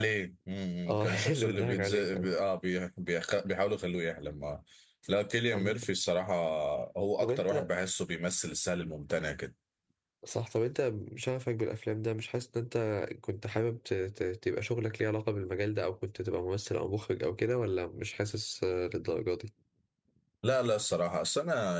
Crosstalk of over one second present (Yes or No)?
Yes